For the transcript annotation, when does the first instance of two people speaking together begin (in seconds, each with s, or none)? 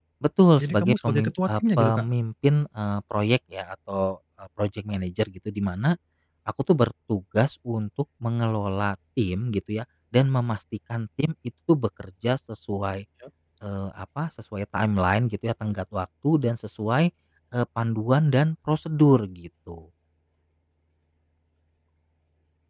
0.6 s